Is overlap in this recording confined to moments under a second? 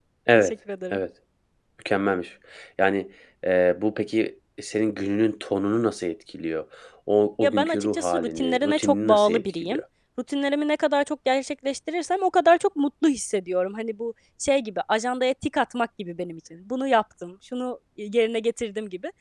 No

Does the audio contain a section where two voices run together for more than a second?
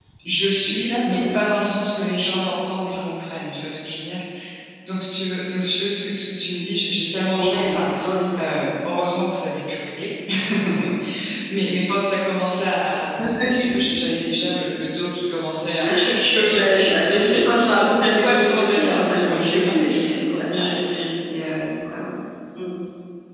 Yes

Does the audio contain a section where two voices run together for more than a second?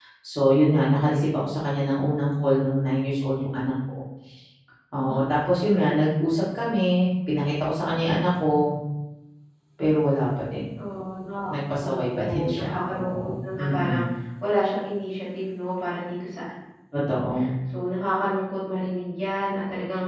Yes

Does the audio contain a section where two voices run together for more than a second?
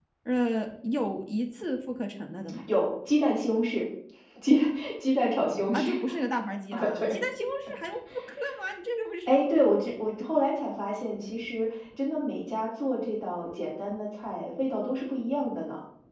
No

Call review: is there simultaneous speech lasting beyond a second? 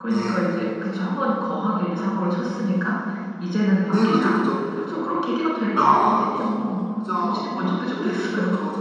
Yes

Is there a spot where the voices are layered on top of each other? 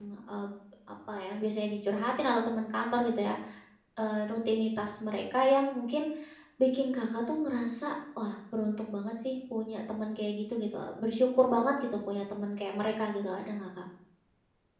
No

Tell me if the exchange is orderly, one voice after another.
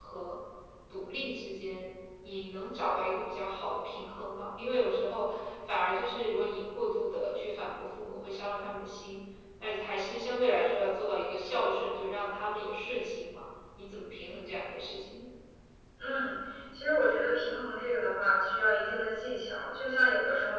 Yes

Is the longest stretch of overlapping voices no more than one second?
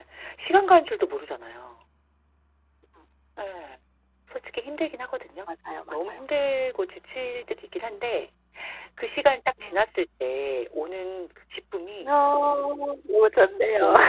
Yes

